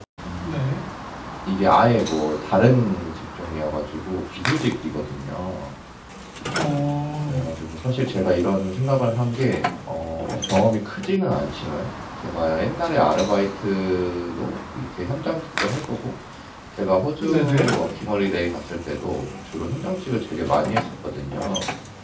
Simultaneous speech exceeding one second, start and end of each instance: none

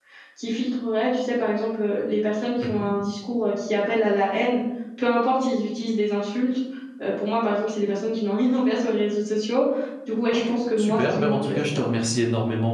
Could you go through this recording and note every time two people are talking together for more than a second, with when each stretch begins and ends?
10.3-11.6

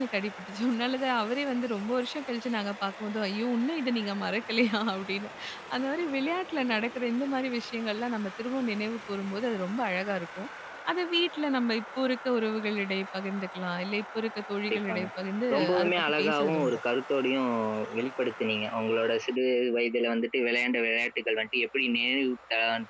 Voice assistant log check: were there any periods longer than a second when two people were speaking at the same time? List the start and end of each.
15.5-16.8

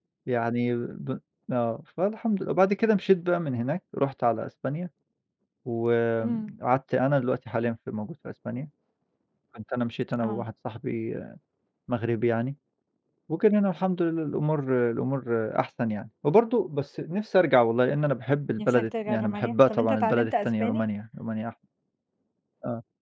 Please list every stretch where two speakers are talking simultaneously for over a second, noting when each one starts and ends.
18.6-20.8

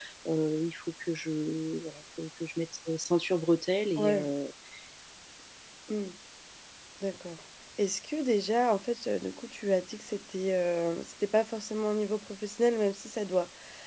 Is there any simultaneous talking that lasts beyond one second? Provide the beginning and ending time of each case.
none

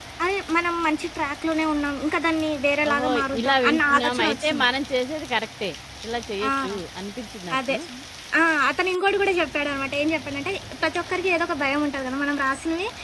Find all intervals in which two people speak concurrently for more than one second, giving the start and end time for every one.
2.9-4.7

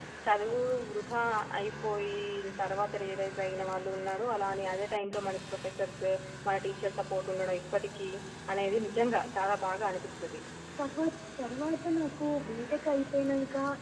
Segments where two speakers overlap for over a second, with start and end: none

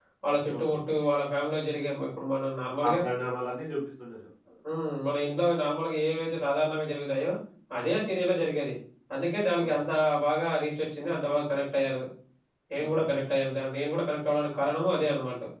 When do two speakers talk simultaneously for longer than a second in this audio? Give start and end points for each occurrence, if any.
none

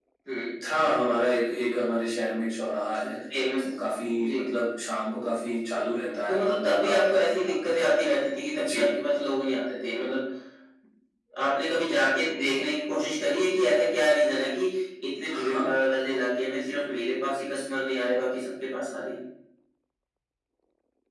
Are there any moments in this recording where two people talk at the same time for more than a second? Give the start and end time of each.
6.3-7.8

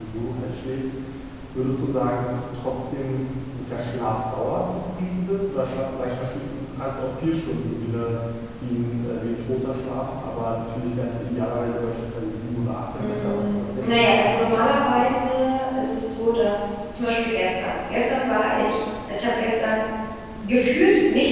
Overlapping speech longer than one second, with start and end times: 13.0-15.1

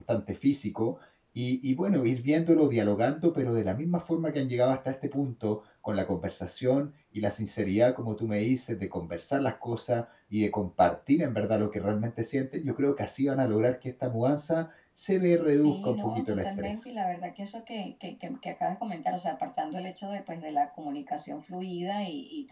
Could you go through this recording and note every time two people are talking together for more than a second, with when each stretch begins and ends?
15.5-16.9

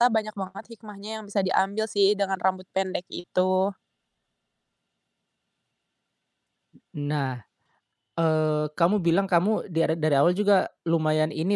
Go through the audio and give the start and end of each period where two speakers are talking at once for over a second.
none

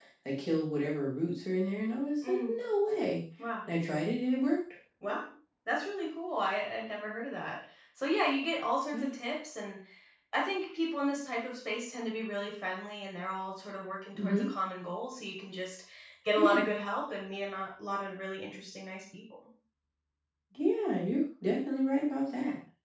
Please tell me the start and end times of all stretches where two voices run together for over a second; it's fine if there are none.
none

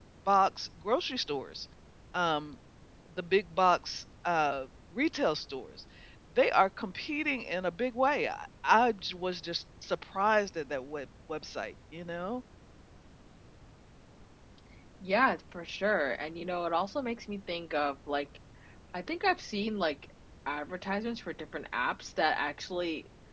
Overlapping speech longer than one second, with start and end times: none

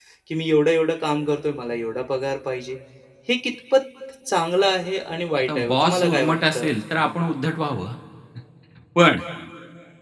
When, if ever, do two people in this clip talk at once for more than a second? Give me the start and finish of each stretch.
5.4-6.7

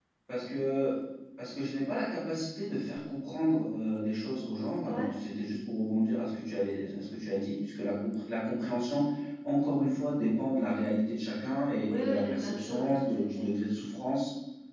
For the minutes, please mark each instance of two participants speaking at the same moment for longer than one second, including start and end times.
11.9-13.5

